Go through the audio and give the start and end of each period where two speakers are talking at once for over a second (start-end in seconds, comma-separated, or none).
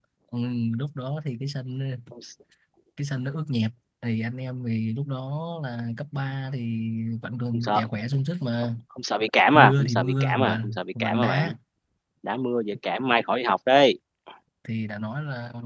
9.5-11.5